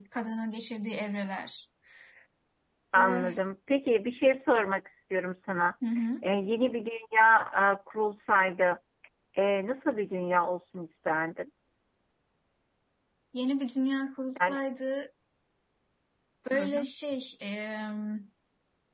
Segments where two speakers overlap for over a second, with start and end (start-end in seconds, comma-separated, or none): none